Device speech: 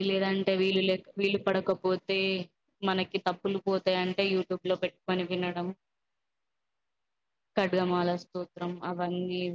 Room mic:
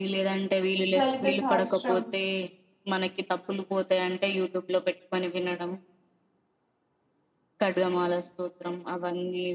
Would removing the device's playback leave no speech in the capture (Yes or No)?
No